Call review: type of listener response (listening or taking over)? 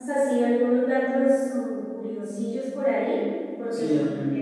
taking over